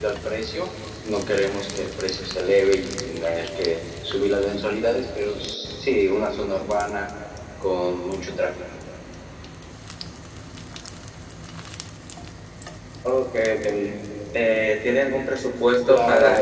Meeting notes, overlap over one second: none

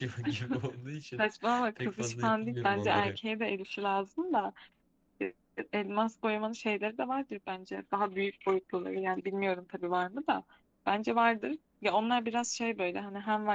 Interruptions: present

